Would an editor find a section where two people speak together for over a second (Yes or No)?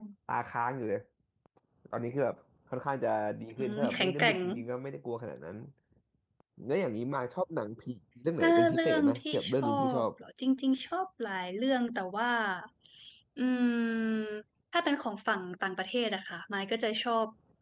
Yes